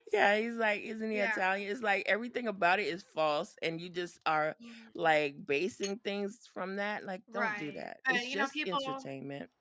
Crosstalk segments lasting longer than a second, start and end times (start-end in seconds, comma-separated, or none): 7.3-9.1